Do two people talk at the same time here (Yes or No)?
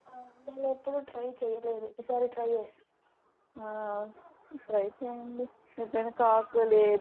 No